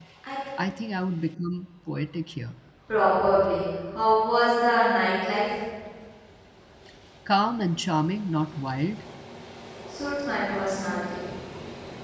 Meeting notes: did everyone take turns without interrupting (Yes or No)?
Yes